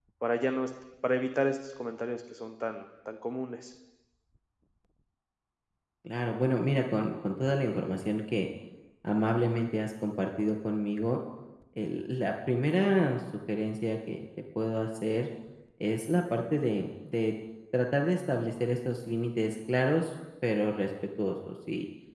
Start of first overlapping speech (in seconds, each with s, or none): none